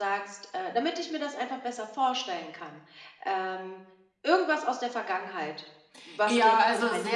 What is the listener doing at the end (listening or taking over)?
taking over